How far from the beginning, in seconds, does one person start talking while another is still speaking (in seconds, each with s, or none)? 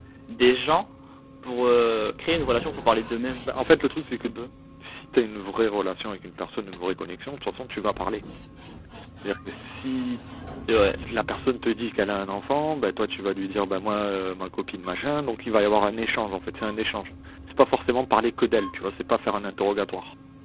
none